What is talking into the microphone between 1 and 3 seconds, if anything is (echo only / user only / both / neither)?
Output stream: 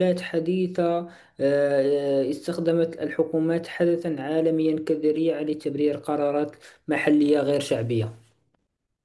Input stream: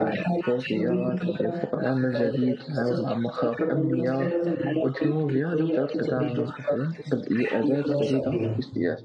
both